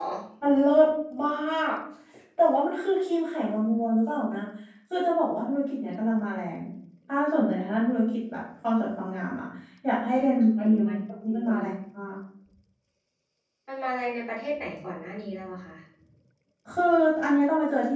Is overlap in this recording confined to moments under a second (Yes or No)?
No